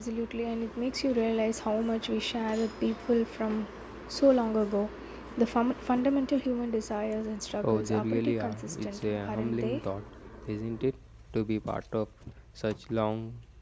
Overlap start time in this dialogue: 8 s

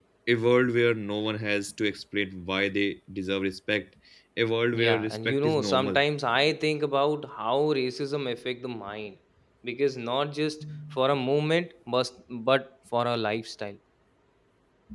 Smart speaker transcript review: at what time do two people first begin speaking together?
5 s

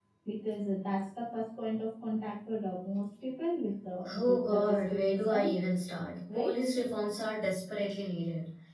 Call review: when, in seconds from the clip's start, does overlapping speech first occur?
4 s

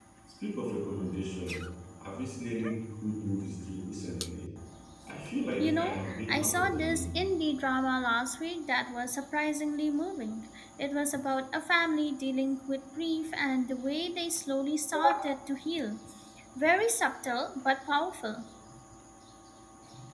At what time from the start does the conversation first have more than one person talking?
6 s

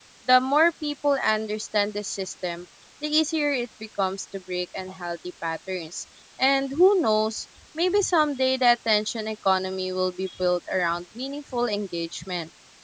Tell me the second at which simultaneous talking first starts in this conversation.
none

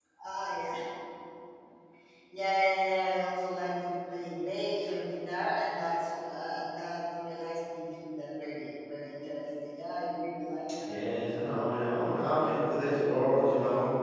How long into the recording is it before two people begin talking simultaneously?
none

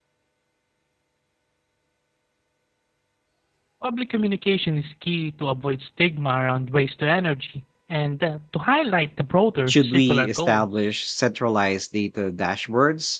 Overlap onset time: 10 s

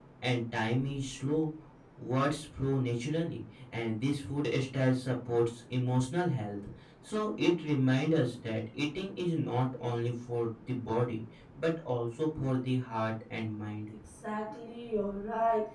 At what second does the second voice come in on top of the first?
none

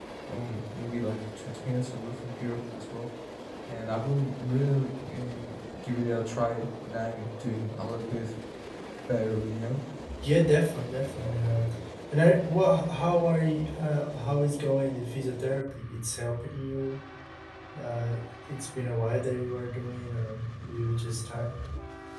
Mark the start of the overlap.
none

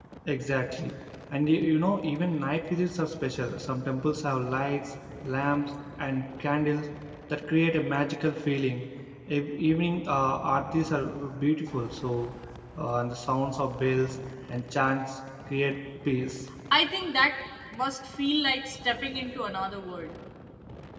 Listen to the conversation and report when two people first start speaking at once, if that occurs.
none

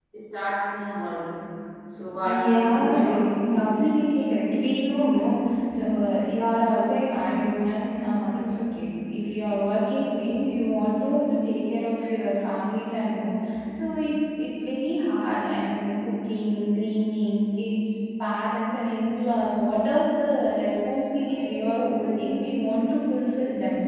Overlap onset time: 2 s

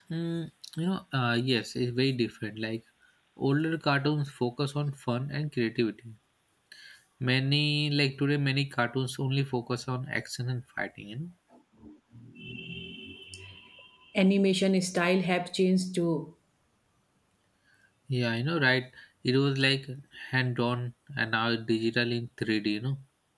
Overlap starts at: none

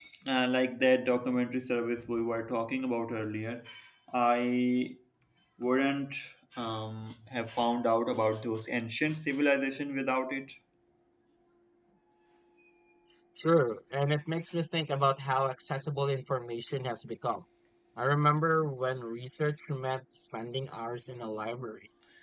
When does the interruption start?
none

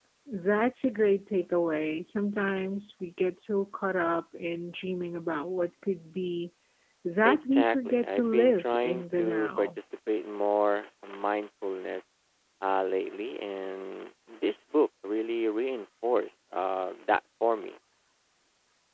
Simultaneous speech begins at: 7 s

